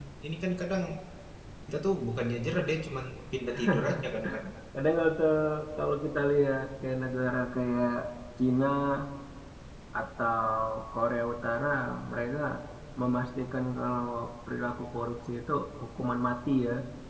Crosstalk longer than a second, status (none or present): none